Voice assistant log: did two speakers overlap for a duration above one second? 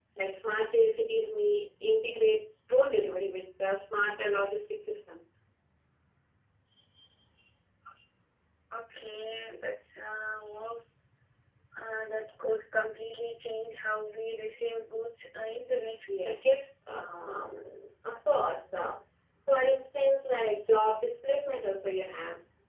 No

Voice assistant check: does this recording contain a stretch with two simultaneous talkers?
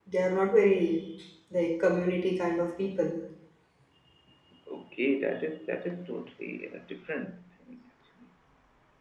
No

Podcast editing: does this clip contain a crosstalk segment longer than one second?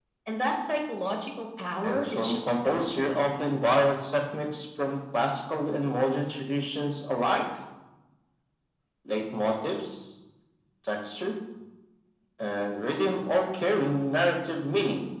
Yes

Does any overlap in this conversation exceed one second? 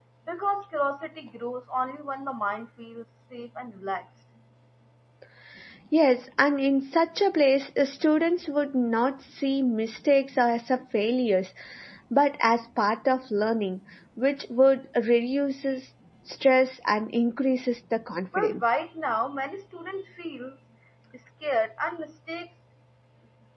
No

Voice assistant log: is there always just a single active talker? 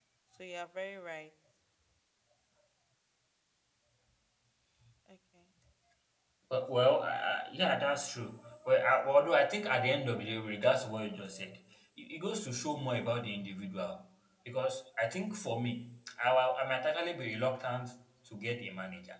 Yes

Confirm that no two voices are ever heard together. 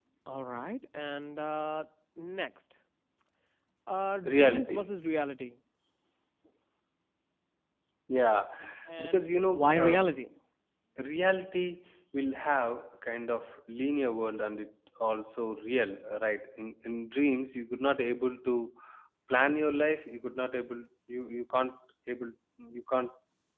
No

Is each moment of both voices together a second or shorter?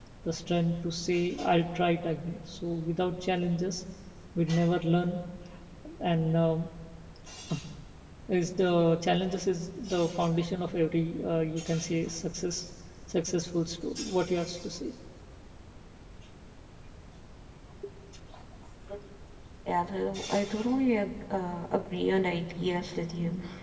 Yes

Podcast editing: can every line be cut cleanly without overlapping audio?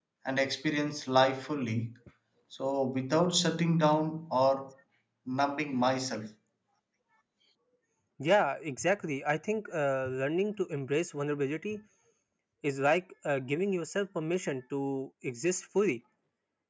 Yes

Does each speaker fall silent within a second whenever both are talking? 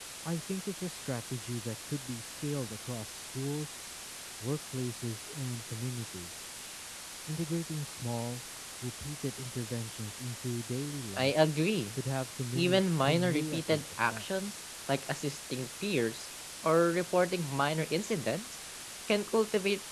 No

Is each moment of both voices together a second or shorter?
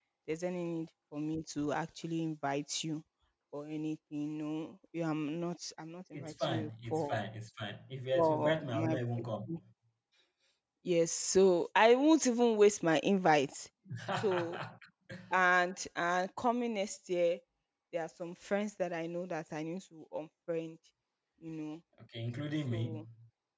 No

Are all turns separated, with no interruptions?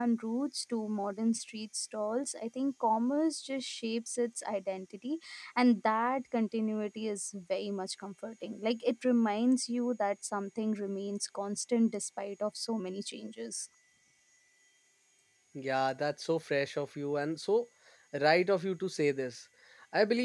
Yes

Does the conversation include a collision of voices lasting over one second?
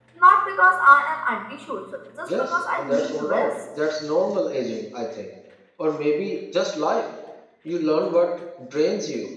Yes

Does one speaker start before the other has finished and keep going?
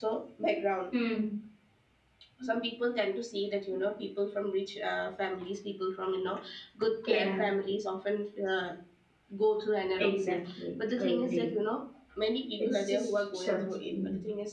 Yes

